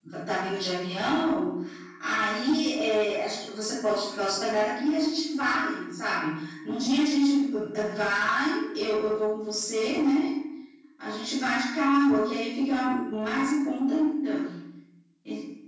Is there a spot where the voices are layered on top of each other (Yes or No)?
No